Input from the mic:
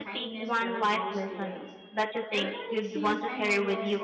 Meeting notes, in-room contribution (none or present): present